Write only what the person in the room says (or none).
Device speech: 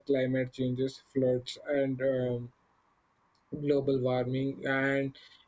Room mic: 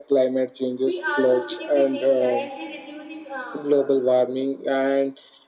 we also save the nature and they reducing uh,